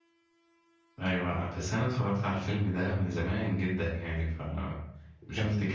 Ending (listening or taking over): taking over